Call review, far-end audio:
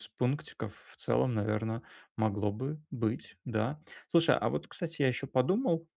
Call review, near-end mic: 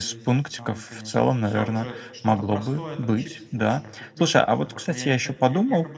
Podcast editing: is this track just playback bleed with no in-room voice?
No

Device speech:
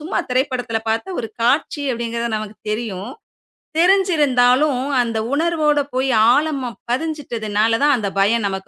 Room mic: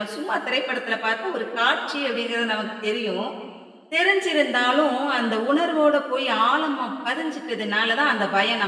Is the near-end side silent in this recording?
Yes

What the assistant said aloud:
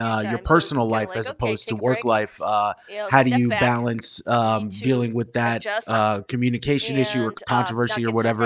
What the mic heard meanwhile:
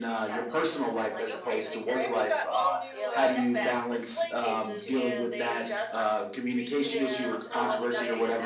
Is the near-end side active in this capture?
Yes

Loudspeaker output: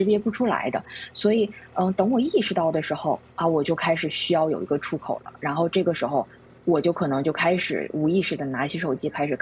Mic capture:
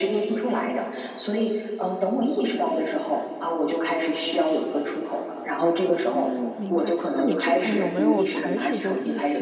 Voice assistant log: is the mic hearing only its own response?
No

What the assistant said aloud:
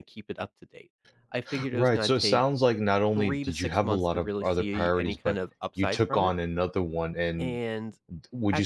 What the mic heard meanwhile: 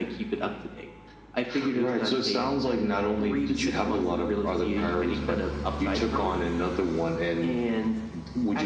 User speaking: No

